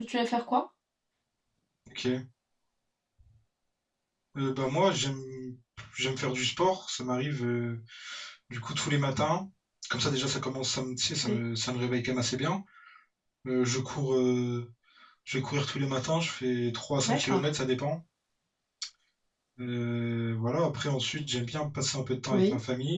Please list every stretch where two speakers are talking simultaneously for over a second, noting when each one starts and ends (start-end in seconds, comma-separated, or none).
none